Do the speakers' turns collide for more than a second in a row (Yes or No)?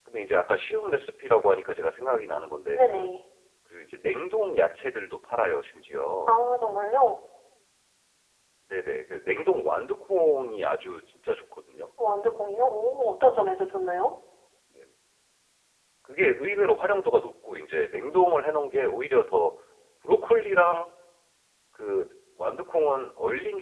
No